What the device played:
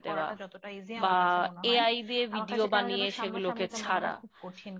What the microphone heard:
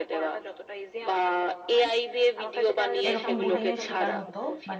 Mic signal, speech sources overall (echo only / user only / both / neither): both